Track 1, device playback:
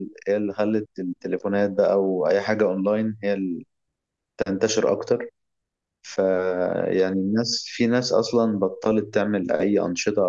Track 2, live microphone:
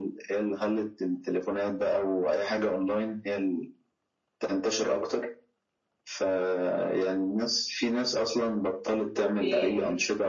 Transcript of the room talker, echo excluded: اوكي

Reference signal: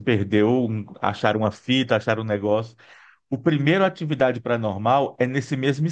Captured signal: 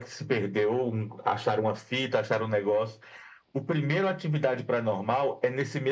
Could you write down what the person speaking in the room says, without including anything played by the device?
none

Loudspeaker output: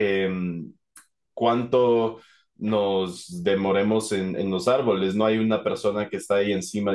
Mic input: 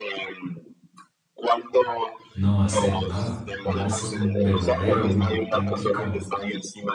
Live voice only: no hacer nada, darse un verdadero, un auténtico

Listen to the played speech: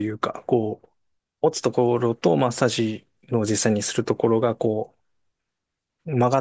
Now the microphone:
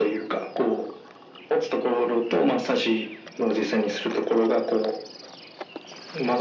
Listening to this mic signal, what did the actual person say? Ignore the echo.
none

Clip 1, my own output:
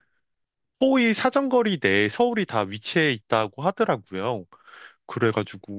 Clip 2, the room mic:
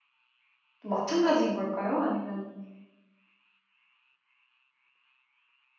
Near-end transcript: 또 마찬가지인 걸까요? 아니면

